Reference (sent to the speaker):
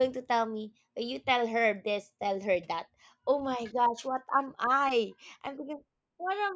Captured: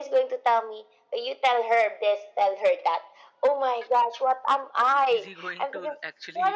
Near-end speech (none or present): present